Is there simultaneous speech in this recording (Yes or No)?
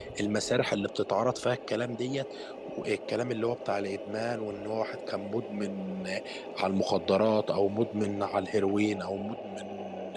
No